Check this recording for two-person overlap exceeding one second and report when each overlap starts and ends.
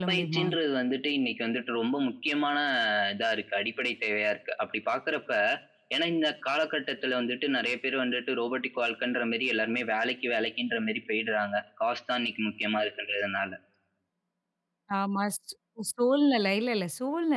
none

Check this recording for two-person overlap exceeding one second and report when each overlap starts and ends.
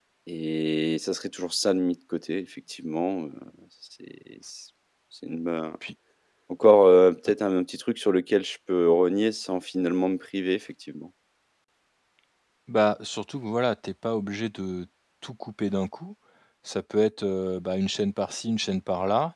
none

